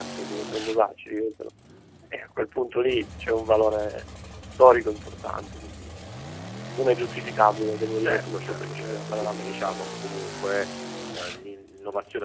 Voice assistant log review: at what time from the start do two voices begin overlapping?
8.0 s

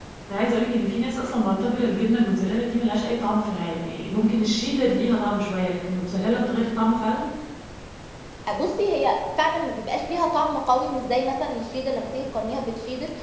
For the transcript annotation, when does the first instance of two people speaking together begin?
none

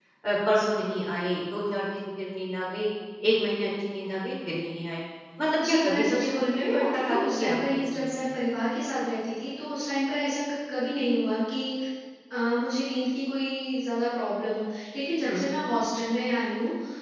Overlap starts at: 5.7 s

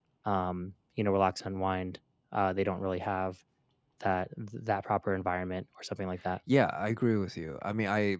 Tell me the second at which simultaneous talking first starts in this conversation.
none

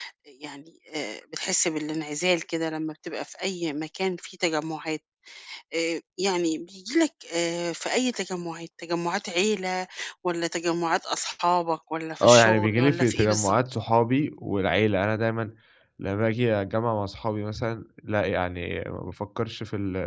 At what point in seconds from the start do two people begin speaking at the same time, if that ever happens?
12.2 s

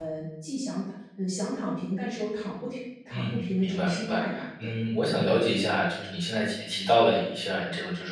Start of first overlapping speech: 3.1 s

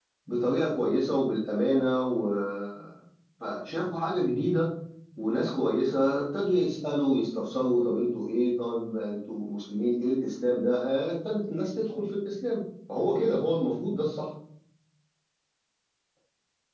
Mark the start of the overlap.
none

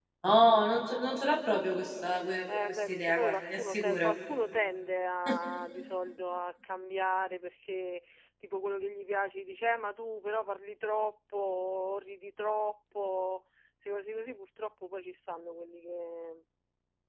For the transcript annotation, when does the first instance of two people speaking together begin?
2.5 s

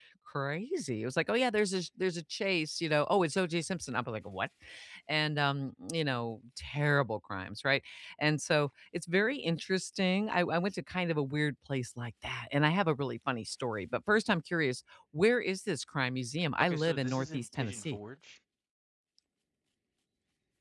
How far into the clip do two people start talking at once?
16.6 s

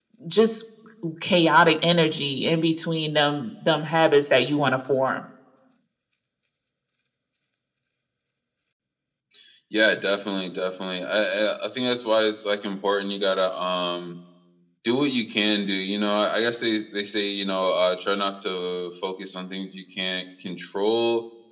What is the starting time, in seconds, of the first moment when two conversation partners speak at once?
none

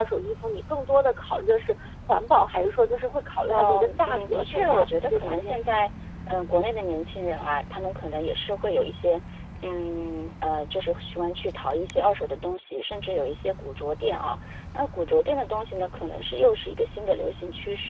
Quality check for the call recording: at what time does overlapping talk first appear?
3.5 s

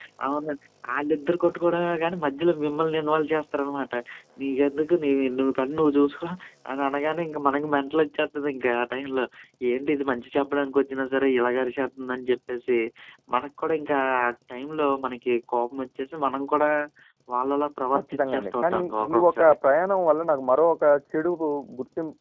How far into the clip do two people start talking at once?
17.9 s

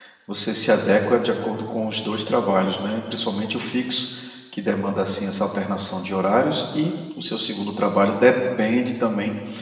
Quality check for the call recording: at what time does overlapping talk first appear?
none

